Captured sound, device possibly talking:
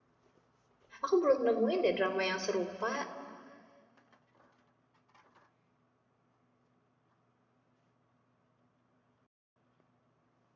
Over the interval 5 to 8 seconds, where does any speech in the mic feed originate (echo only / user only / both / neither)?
neither